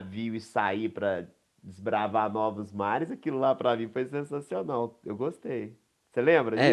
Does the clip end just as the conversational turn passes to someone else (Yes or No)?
Yes